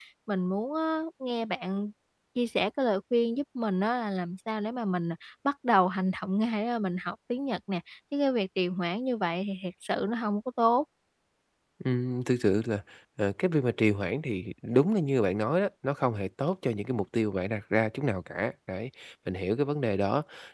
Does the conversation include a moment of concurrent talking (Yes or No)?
No